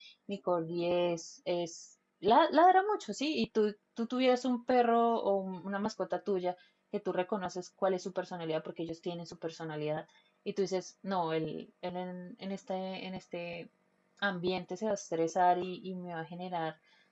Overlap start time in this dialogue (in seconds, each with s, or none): none